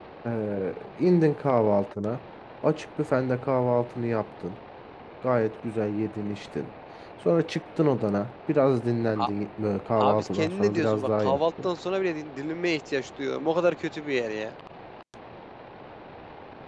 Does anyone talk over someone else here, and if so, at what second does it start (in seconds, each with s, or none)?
10.0 s